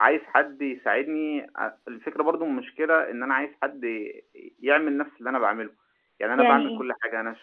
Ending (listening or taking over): listening